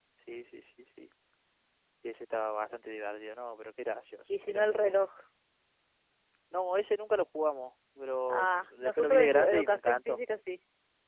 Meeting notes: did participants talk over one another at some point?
Yes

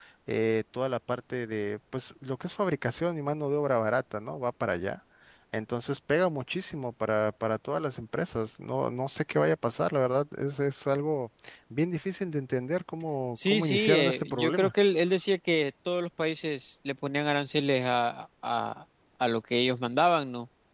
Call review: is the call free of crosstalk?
No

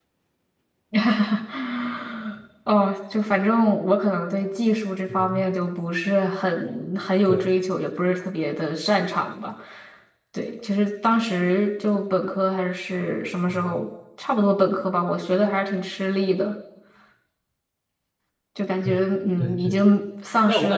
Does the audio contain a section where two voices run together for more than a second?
No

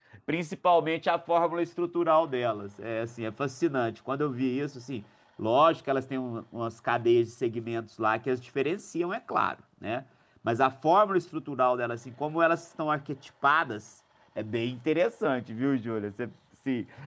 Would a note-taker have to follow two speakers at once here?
No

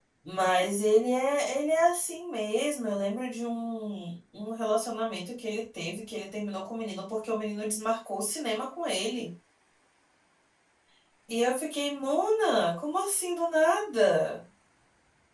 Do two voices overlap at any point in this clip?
No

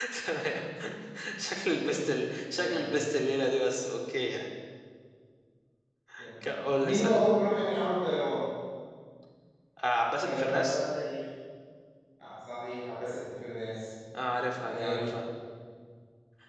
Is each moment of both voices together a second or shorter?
No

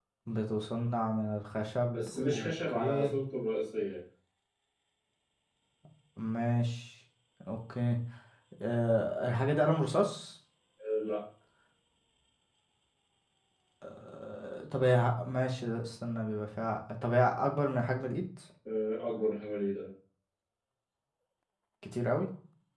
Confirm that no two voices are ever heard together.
No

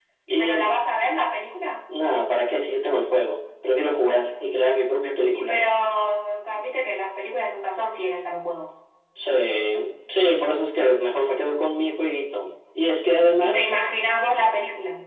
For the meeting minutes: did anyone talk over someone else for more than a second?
No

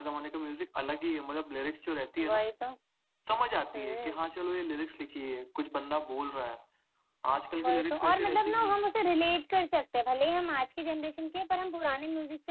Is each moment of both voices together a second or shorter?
No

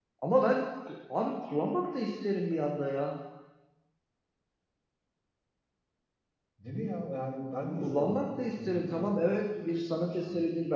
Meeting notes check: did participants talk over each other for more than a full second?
Yes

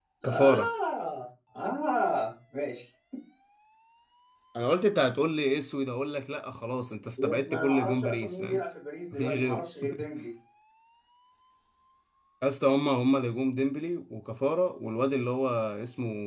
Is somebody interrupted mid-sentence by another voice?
Yes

